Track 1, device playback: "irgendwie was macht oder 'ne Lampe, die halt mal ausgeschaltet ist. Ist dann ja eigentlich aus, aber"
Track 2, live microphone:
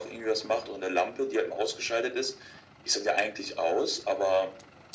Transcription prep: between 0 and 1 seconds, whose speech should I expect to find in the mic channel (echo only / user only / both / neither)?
echo only